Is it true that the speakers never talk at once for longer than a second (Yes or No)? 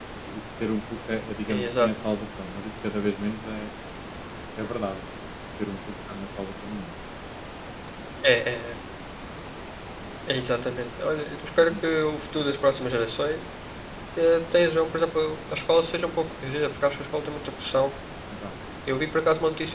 Yes